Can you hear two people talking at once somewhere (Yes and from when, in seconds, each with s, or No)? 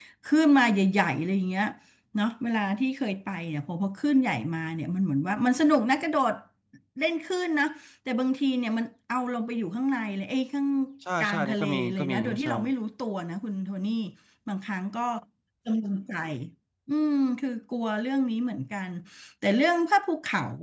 Yes, from 11.2 s